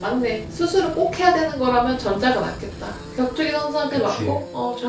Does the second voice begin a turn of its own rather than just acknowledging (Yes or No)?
No